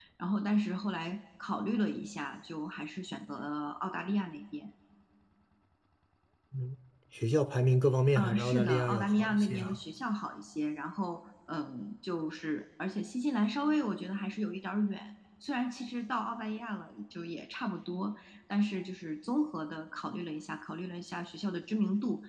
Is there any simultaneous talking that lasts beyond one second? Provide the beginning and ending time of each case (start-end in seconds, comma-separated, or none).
8.2-9.8